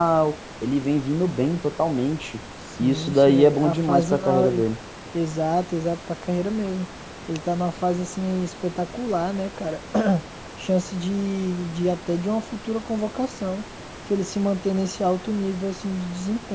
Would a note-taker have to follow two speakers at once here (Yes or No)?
Yes